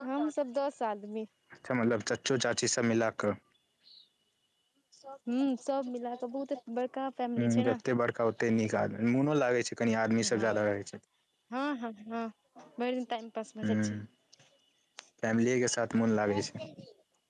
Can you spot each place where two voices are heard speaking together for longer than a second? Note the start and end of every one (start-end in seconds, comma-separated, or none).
none